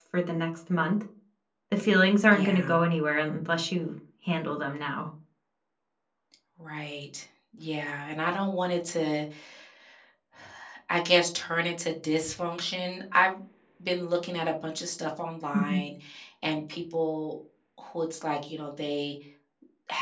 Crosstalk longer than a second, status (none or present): none